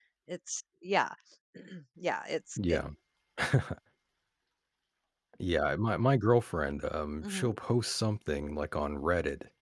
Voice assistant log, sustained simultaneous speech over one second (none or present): none